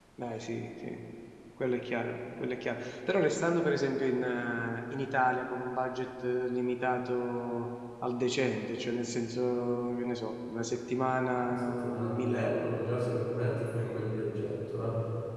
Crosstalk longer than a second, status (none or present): present